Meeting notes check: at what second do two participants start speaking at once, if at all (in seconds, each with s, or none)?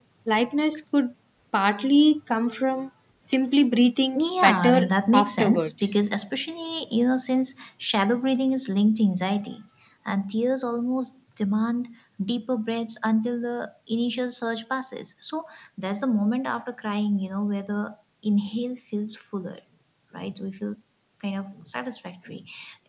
4.2 s